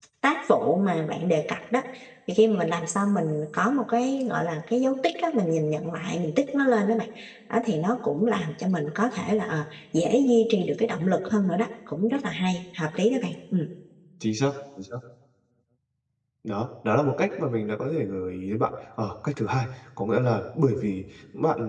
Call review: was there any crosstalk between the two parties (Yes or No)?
No